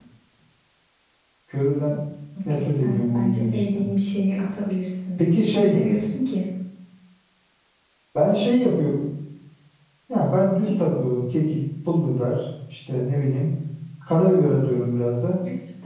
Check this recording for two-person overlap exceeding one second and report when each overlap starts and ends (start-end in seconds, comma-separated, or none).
2.5-3.8